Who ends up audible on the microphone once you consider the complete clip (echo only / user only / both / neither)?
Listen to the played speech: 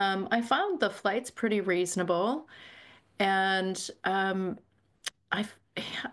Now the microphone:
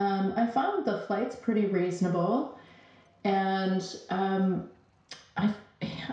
echo only